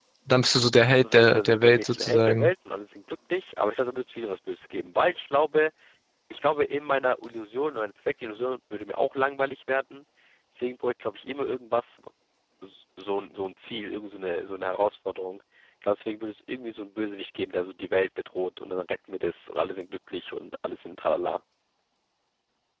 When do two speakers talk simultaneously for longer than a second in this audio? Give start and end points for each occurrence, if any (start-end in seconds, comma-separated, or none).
1.0-2.5